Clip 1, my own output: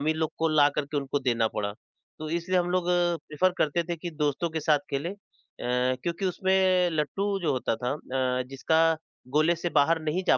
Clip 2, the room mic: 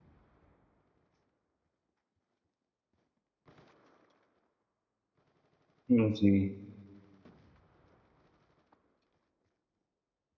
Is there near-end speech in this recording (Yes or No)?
Yes